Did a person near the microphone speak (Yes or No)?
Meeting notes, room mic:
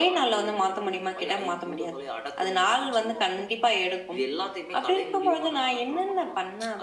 No